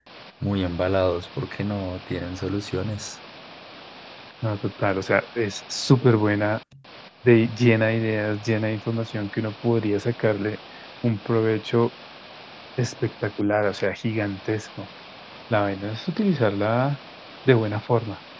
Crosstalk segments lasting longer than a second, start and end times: none

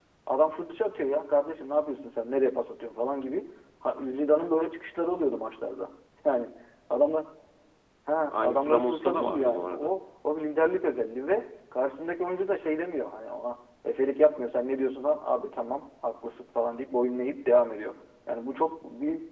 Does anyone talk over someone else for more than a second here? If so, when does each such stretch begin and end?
8.3-10.0

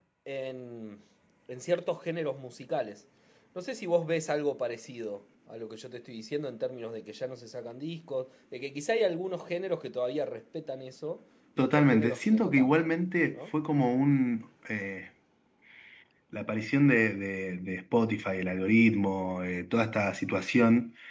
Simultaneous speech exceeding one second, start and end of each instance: 11.6-12.9

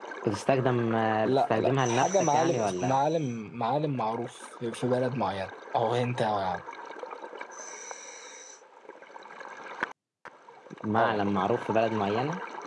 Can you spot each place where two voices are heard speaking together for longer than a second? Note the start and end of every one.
1.2-3.0

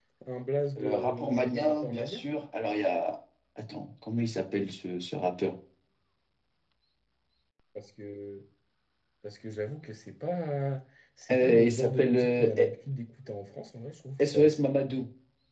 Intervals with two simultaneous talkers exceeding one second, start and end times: 0.8-2.2, 11.3-12.7

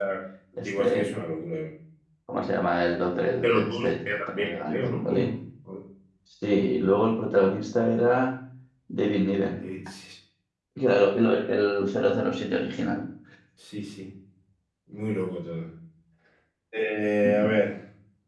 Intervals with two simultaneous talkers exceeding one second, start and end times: 3.4-5.3

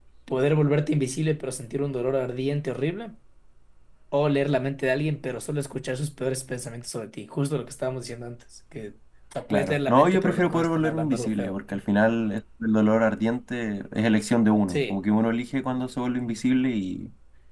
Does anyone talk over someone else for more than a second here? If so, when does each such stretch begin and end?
9.5-11.5

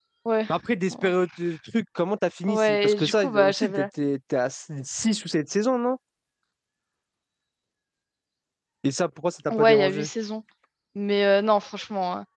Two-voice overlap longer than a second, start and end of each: 2.5-3.9

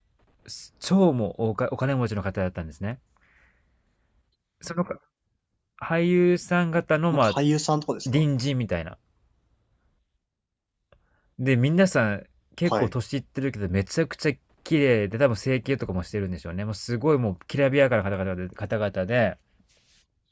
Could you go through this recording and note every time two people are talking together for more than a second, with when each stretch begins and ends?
none

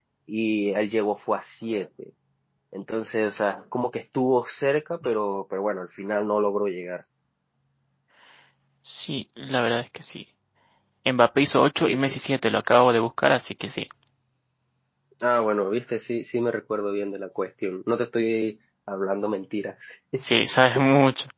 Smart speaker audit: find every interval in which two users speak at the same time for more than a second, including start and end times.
none

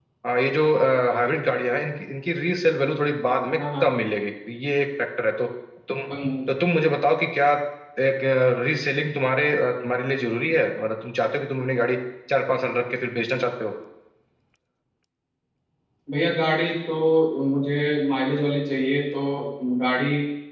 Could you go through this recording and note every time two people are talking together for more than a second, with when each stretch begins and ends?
none

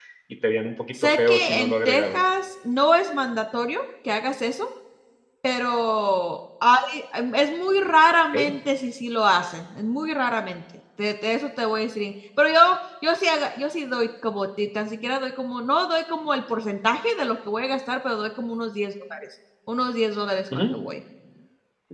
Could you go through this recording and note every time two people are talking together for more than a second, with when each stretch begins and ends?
1.0-2.2

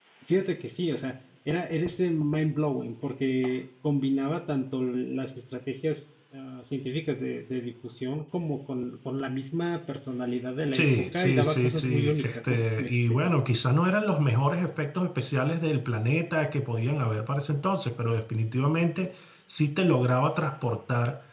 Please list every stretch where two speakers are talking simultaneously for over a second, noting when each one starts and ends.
10.7-13.2

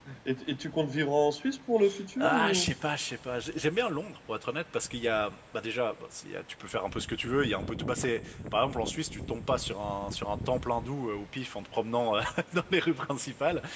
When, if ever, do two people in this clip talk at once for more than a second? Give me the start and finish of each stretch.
none

